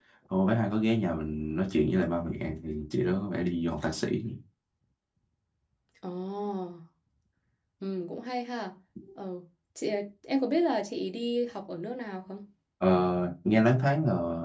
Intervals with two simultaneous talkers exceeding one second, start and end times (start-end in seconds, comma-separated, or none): none